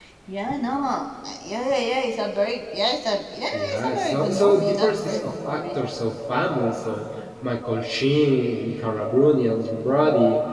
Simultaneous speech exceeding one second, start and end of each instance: 3.5-5.8

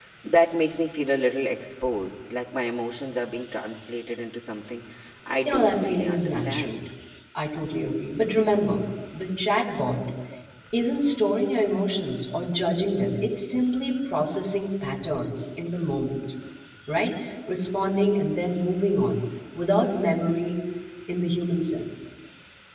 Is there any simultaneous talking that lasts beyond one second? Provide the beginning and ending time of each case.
5.4-6.8

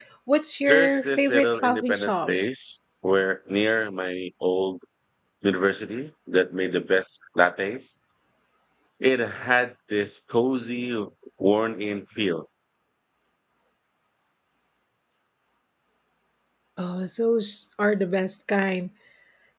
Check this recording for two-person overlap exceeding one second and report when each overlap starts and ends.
0.7-2.3

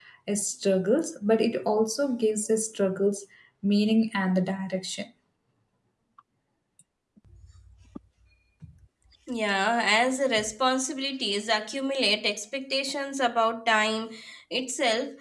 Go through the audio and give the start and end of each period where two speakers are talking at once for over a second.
none

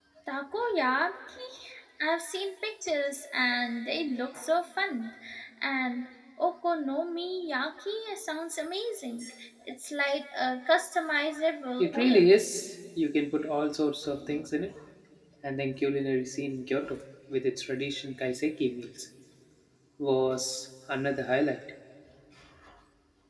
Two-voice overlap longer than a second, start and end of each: none

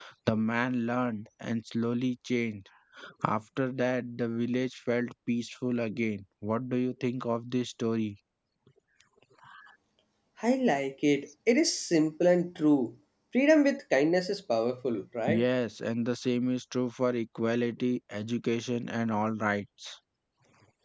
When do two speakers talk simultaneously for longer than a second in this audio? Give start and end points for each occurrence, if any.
none

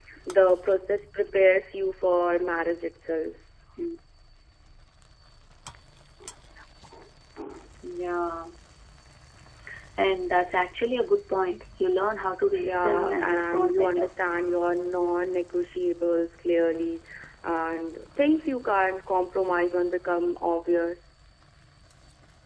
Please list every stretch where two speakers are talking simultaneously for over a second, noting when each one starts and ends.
12.6-14.1

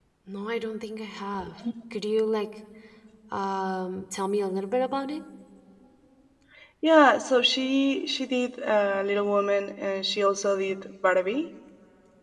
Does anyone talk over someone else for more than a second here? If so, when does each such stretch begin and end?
none

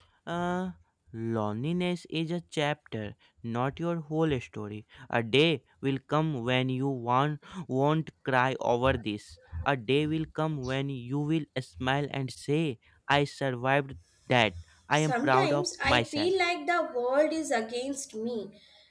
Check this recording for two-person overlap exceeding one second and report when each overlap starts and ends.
14.9-16.3

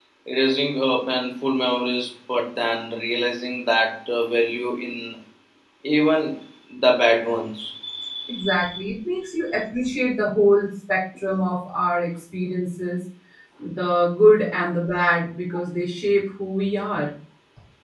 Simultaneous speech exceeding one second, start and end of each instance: none

